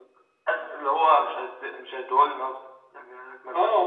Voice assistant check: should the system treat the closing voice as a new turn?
Yes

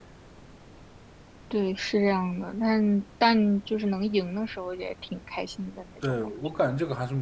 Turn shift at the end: Yes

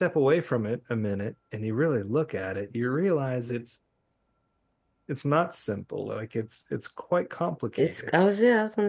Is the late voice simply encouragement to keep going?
No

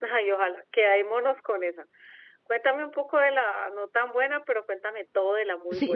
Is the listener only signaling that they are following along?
No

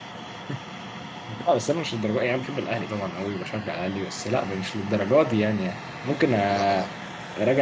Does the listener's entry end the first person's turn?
No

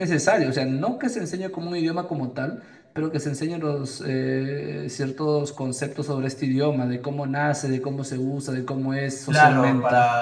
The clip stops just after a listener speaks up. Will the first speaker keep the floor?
No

